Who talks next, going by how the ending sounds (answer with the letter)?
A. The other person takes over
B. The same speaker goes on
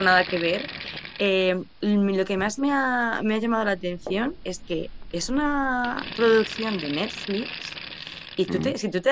B